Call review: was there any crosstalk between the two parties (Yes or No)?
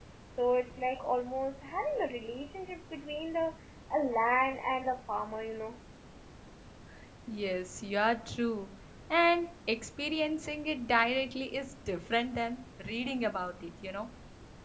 No